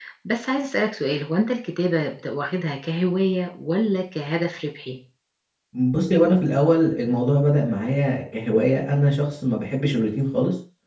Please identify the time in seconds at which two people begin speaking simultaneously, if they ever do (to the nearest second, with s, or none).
none